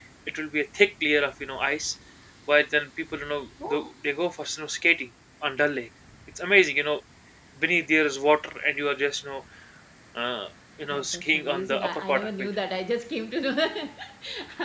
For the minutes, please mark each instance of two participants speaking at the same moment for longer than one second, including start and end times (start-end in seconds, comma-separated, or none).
10.9-12.5